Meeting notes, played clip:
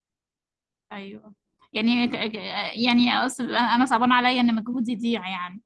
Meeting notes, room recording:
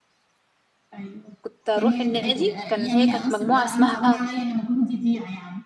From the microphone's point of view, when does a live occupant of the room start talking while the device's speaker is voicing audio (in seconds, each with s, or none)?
1.4 s